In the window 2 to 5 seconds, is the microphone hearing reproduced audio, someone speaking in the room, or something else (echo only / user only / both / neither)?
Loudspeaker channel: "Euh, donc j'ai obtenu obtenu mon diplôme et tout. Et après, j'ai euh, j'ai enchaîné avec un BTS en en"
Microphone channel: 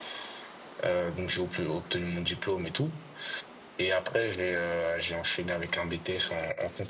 echo only